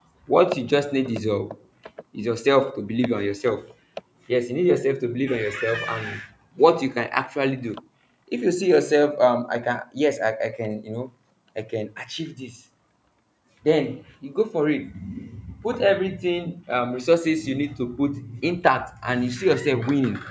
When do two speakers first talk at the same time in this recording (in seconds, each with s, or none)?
none